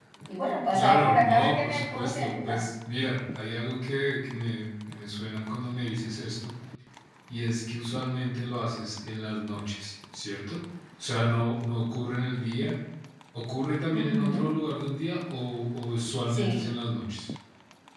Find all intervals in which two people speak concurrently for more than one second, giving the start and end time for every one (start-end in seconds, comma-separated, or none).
0.7-2.6